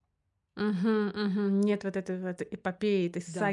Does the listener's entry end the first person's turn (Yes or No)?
Yes